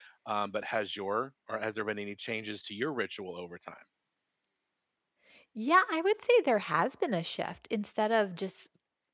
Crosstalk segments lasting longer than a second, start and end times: none

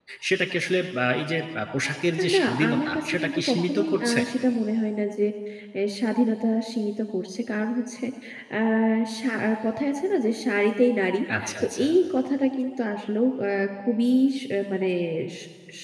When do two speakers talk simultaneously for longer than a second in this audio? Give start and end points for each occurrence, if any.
2.2-4.2

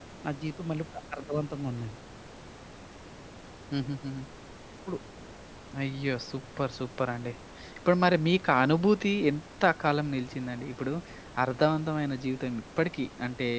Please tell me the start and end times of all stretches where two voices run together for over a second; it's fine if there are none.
none

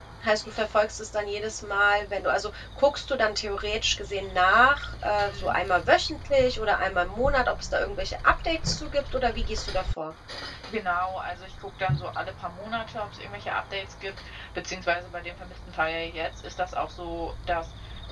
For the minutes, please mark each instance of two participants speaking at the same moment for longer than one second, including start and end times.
none

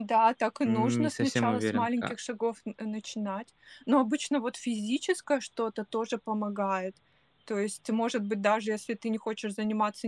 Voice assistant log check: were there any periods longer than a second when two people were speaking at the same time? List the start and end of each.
0.7-2.1

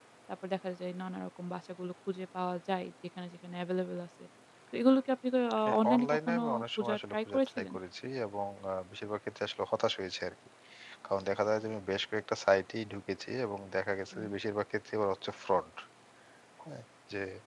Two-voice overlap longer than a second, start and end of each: 5.7-7.7

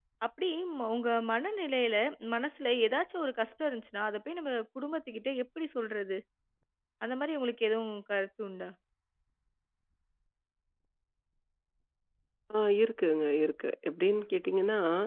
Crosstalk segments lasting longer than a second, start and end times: none

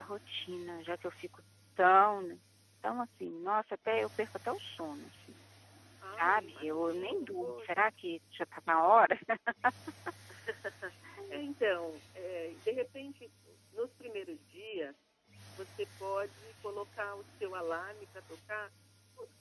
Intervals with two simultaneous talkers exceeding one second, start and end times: 6.1-7.7

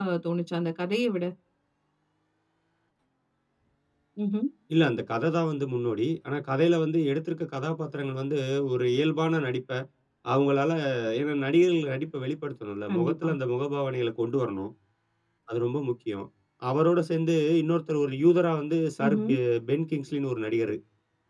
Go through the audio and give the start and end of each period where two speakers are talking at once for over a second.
none

